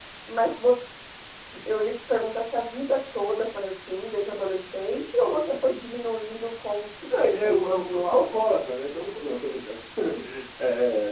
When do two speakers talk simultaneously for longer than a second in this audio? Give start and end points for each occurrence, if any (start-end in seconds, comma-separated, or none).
7.2-8.4